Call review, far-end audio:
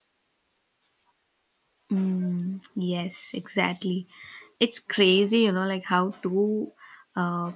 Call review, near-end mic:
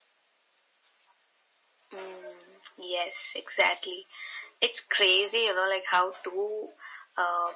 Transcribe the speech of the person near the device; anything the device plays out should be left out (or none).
none